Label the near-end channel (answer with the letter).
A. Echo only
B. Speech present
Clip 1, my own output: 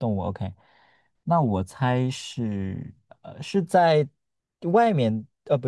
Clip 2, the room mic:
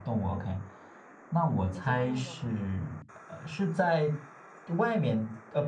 B